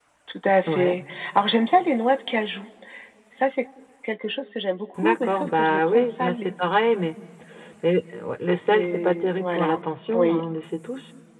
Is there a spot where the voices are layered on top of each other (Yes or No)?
Yes